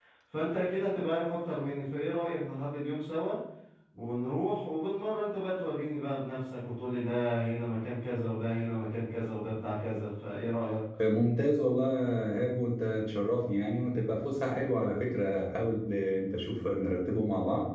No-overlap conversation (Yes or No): Yes